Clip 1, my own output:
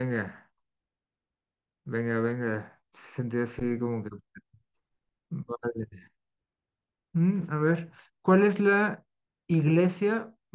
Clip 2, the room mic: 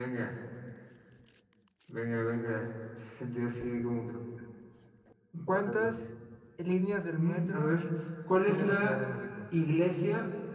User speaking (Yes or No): Yes